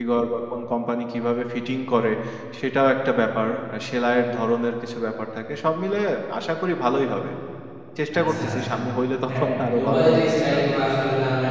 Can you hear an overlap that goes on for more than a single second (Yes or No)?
Yes